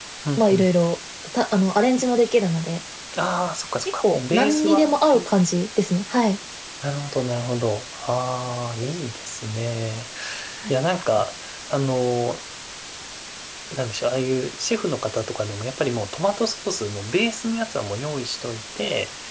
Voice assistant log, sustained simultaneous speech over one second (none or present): present